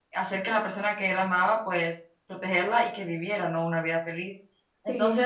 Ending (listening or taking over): listening